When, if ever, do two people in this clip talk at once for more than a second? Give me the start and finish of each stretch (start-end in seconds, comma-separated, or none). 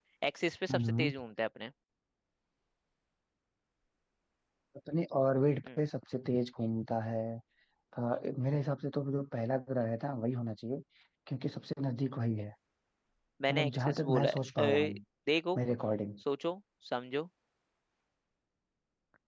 13.5-15.0